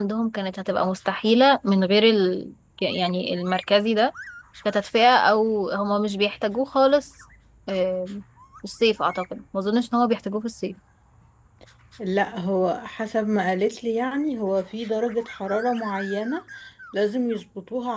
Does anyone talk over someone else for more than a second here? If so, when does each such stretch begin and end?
none

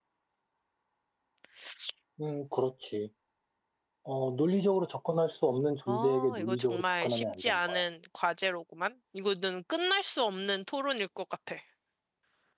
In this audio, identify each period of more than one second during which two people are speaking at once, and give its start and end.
5.9-7.8

